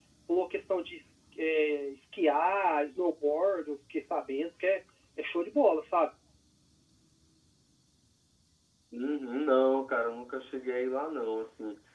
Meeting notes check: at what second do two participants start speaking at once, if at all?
none

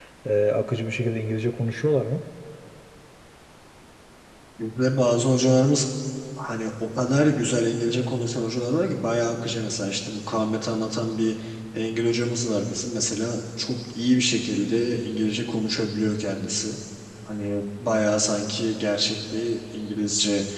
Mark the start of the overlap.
none

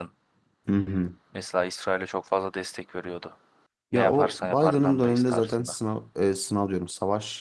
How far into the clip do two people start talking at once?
3.9 s

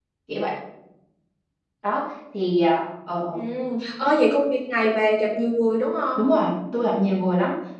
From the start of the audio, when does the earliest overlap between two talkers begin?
none

